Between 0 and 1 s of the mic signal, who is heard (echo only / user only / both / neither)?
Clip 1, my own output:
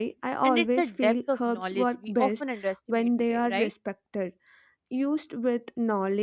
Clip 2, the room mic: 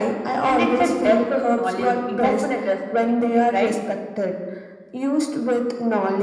echo only